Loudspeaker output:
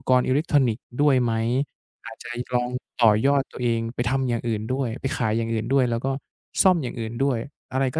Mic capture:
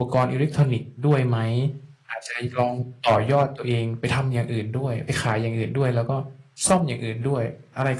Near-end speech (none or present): none